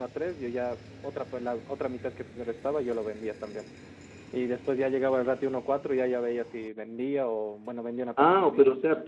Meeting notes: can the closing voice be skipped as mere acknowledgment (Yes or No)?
No